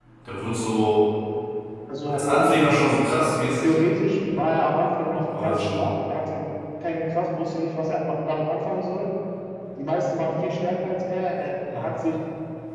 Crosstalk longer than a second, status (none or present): none